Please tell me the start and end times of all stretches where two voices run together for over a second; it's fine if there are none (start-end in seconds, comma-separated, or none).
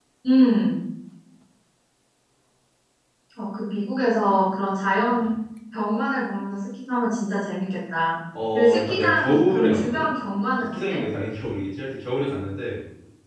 8.5-10.0